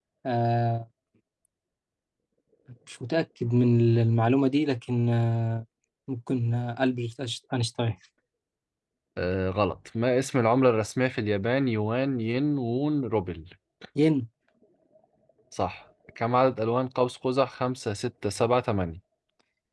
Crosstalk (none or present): none